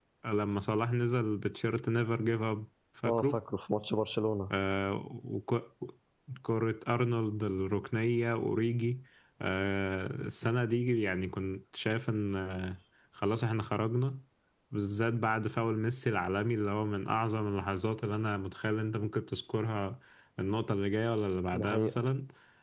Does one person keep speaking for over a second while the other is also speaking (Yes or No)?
No